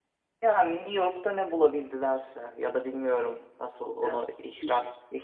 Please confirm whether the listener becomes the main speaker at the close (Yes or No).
No